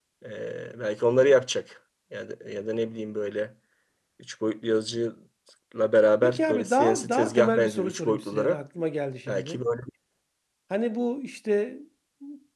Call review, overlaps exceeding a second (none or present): present